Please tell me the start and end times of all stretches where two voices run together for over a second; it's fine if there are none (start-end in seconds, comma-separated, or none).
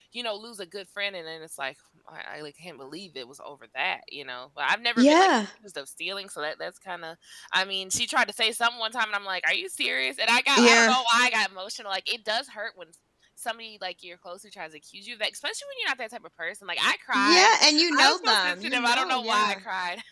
18.0-19.6